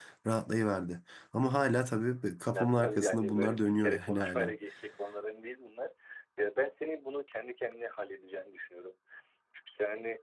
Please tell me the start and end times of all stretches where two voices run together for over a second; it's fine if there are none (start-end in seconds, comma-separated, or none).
2.5-4.5